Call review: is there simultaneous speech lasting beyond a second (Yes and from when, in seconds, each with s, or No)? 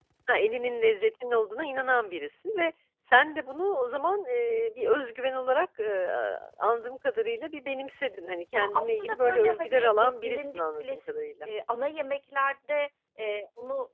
Yes, from 8.5 s